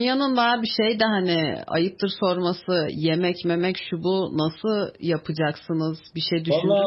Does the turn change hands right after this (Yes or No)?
Yes